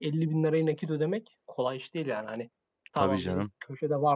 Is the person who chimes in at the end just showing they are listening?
Yes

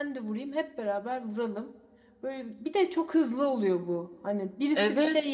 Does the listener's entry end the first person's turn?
No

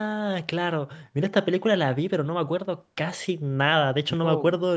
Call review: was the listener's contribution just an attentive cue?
Yes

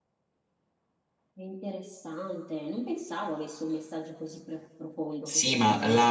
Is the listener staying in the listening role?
No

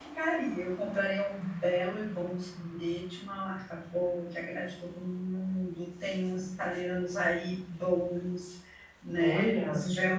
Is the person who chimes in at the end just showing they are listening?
Yes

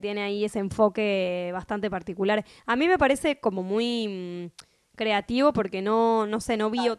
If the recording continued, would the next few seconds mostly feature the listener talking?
No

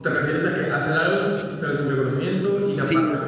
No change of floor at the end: No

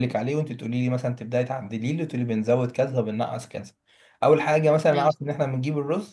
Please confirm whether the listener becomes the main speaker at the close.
No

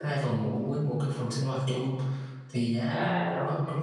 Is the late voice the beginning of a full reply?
No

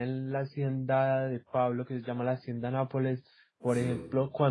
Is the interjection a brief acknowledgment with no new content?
Yes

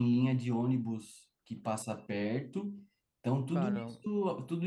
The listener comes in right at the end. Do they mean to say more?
No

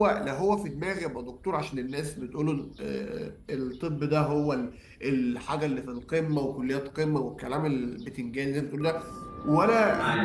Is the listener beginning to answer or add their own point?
No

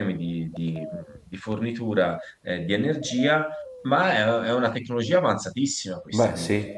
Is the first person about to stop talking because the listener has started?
No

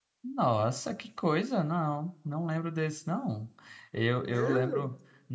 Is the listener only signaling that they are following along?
Yes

